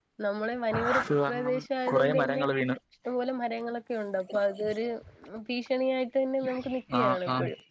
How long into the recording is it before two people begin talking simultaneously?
1.0 s

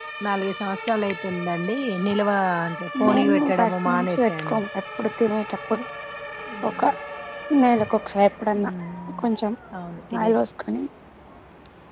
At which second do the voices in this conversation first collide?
3.0 s

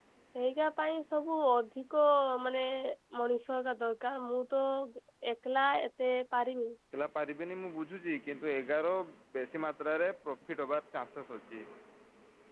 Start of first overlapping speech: none

